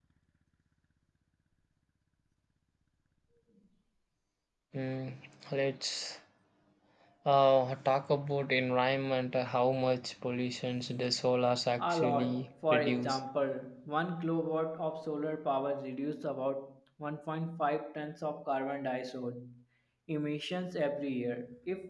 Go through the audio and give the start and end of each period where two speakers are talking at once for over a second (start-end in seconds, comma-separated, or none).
11.8-13.2